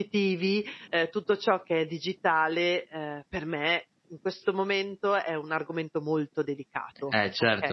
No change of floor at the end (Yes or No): No